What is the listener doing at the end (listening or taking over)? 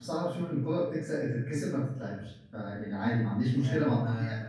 listening